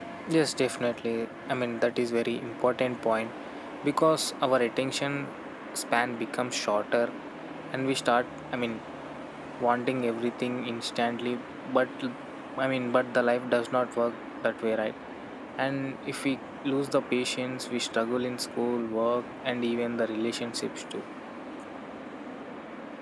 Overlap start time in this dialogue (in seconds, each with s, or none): none